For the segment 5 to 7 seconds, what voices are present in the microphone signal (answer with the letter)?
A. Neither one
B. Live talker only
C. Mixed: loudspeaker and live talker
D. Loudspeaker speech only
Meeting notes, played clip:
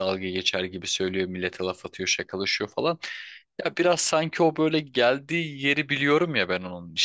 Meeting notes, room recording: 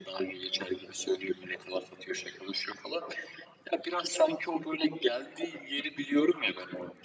D